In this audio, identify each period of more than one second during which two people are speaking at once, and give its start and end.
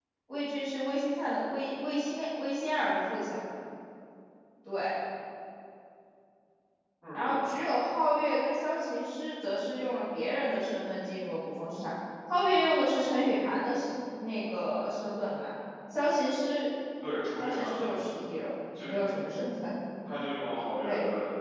none

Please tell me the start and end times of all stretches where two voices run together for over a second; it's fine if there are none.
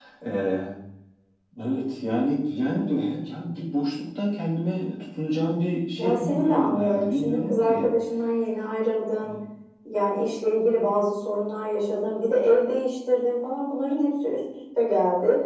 6.0-7.9

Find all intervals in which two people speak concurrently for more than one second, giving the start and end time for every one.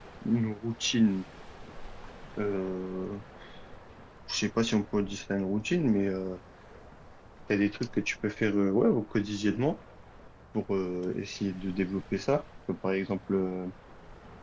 none

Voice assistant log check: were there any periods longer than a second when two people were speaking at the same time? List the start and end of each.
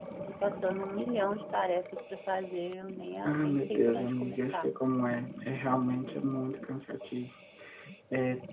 3.2-4.7

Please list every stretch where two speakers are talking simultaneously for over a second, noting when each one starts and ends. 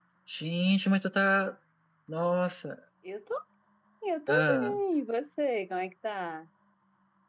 none

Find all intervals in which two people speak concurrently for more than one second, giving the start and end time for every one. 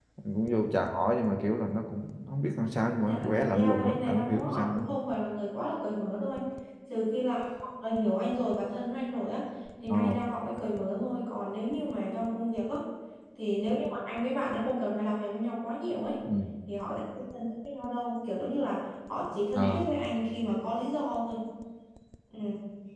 3.0-4.8

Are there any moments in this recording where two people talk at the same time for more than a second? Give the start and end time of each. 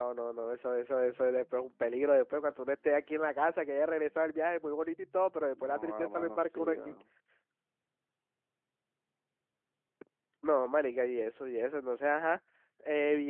5.6-6.9

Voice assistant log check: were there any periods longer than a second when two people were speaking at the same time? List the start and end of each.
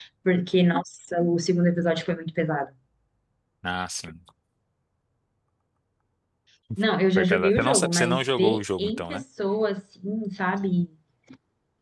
7.2-9.2

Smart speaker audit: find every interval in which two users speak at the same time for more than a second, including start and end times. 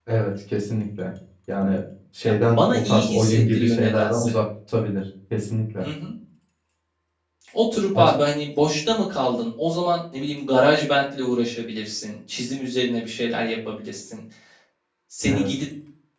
2.2-4.3

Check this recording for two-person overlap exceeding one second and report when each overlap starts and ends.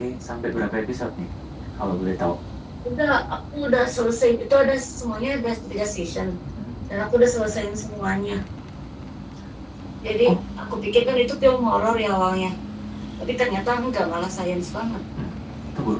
none

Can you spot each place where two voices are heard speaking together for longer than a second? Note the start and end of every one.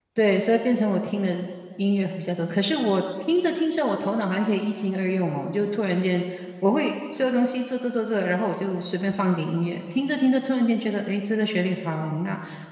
none

